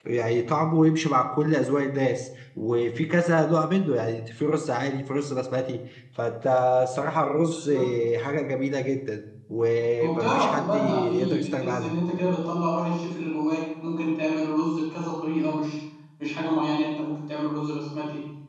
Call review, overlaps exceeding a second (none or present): present